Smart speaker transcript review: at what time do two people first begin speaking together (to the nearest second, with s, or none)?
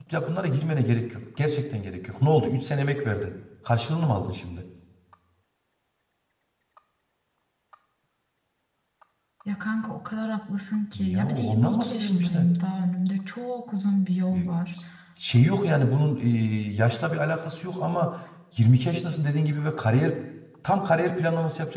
11 s